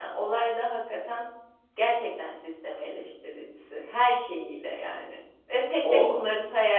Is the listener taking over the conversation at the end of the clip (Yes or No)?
No